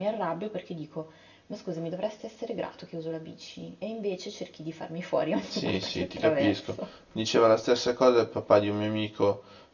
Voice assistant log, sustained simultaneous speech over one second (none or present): present